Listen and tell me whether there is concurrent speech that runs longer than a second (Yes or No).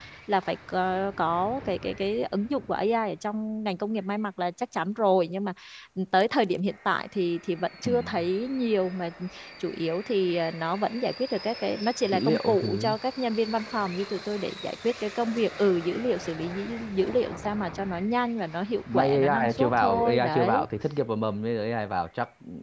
Yes